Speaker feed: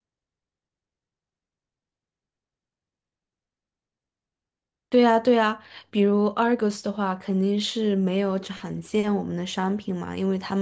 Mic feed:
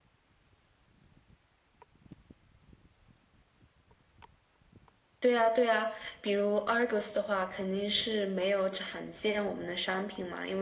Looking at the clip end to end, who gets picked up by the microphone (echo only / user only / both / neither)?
echo only